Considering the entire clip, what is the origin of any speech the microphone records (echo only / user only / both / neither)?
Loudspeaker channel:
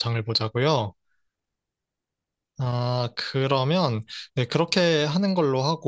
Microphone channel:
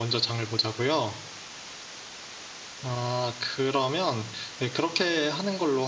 echo only